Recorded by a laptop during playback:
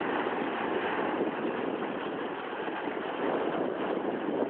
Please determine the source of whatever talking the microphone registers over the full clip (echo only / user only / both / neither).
neither